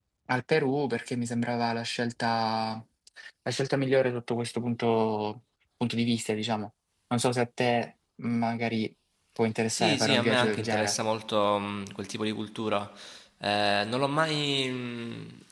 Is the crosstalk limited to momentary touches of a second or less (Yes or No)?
No